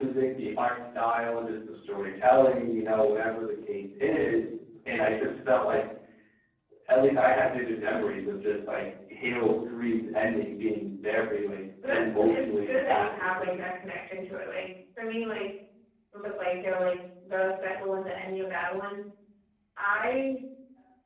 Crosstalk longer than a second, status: present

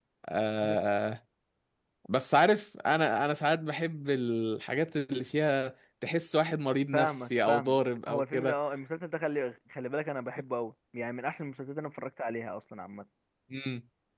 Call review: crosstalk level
present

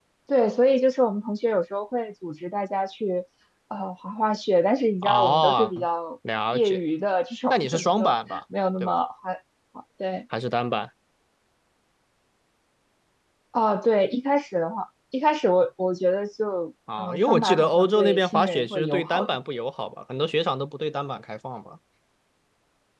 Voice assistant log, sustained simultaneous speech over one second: present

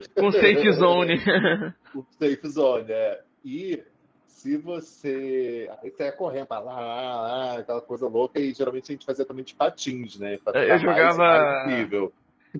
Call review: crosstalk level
present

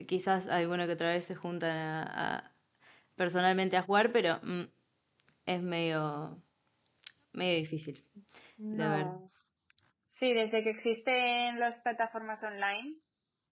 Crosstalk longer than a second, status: none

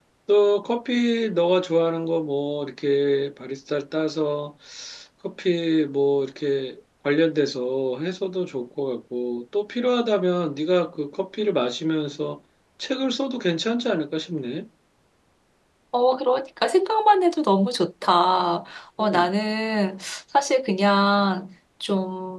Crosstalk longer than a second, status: none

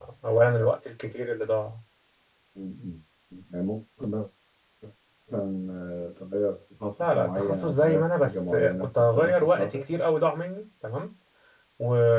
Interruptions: present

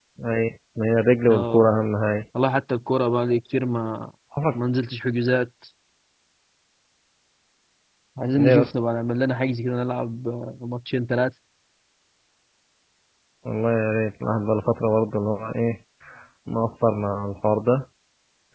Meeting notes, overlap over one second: none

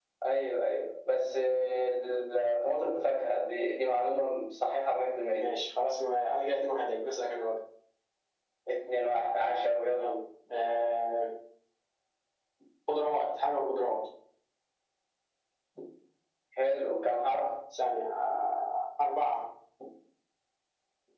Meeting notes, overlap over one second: none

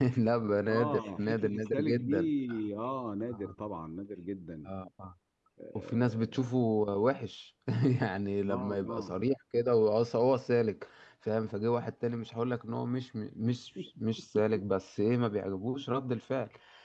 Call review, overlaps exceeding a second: present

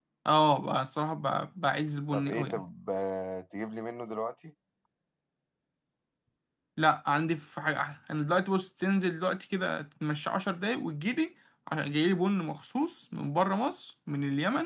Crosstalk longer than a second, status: none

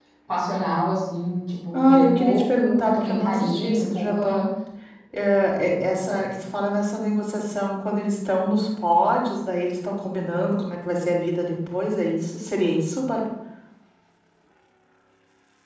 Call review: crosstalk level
present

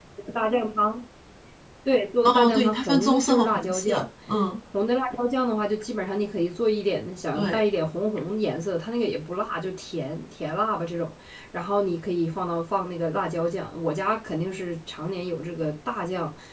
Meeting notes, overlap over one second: present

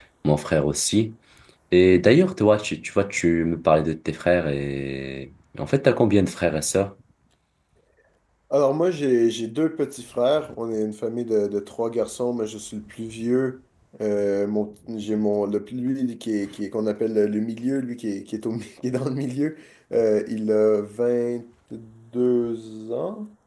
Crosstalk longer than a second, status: none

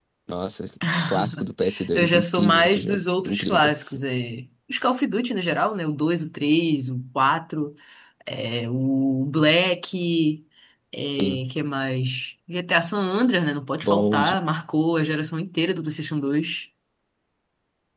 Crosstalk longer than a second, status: present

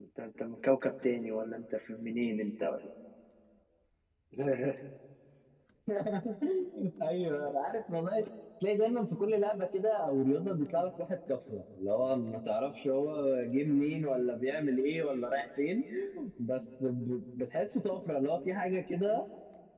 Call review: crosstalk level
none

